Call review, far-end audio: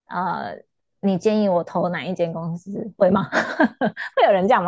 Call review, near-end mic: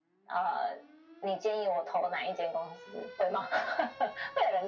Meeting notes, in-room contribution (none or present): none